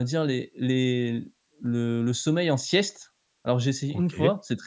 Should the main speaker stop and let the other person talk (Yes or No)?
No